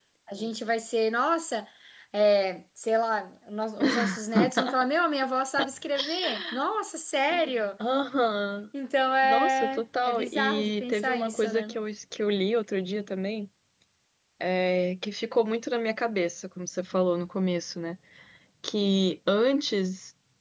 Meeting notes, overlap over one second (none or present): present